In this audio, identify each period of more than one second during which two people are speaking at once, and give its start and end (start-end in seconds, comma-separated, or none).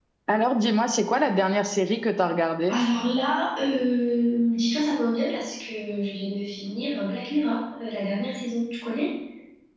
none